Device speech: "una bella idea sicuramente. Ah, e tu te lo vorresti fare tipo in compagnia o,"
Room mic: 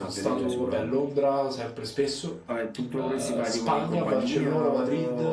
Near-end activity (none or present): present